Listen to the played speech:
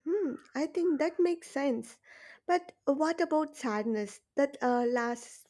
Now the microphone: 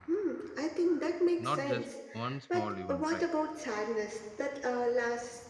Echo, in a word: present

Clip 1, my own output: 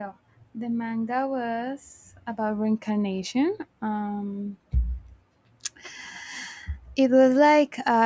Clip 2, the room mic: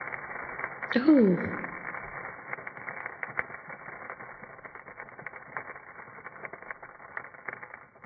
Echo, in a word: none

